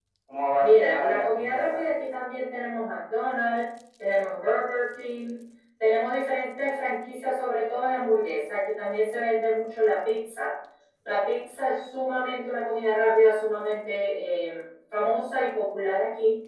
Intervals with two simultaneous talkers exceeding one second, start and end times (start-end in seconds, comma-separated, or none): 0.6-2.0